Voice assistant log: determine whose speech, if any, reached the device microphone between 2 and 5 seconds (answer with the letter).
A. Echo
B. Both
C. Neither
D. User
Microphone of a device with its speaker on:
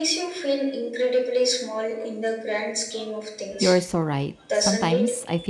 B